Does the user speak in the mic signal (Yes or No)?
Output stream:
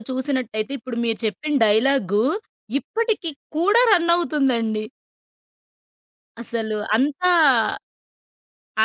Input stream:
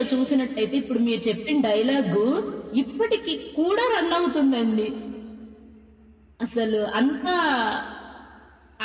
No